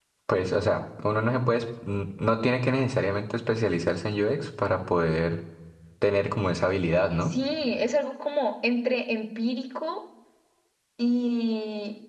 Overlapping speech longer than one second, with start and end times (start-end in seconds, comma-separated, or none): none